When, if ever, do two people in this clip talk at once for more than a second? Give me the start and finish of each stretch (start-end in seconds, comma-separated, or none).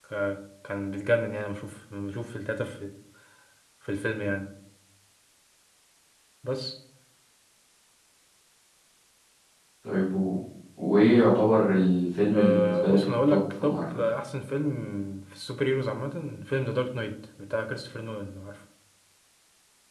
12.3-14.0